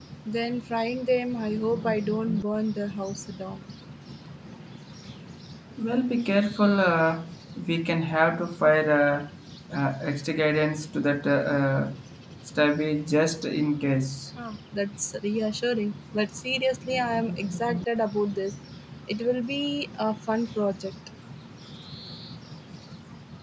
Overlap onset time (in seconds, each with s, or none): none